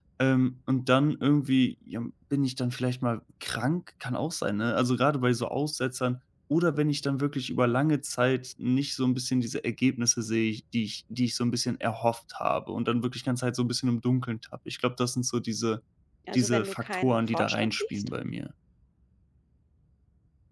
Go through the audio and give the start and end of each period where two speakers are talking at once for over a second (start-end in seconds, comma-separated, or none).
16.3-18.1